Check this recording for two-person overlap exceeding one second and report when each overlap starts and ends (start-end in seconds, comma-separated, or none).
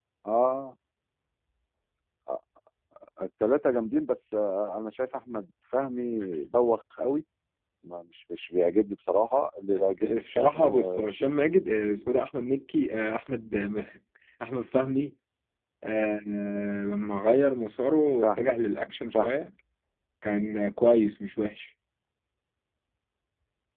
10.0-11.3